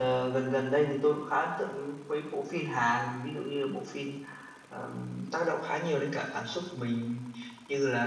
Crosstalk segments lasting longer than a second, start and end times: none

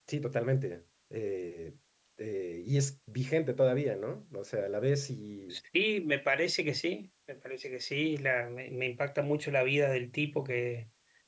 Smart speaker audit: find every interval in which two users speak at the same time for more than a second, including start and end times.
none

